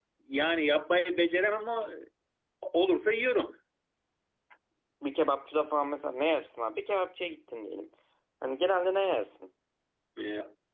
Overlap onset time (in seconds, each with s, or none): none